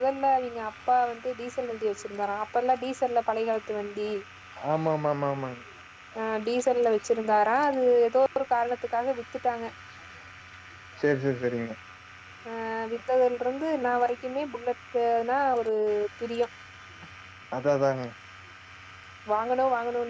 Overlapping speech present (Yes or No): No